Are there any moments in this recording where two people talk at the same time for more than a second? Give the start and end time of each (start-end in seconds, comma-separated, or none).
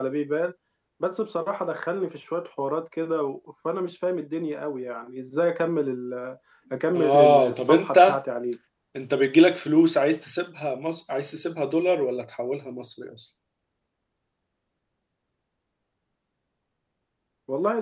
7.0-8.2